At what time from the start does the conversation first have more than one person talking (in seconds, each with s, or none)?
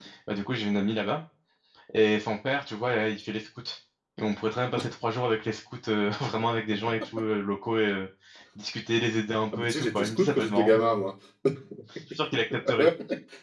9.5 s